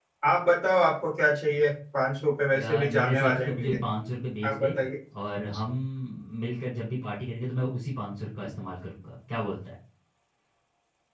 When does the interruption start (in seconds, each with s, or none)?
2.5 s